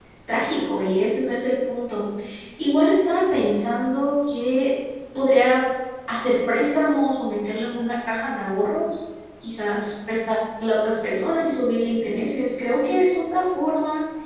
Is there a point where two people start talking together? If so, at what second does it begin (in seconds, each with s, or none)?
none